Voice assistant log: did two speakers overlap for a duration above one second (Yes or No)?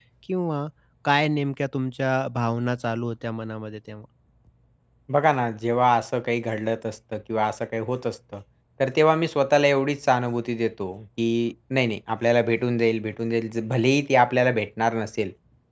No